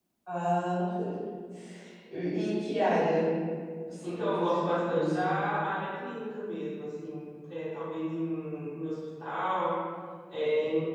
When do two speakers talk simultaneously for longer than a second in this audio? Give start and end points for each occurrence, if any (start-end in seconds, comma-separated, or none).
4.0-5.4